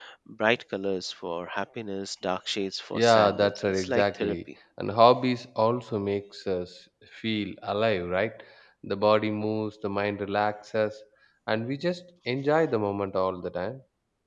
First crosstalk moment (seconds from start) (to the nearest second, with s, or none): 3 s